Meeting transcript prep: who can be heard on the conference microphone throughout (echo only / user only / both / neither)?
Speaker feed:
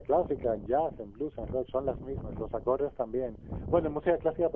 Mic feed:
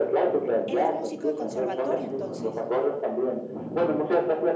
both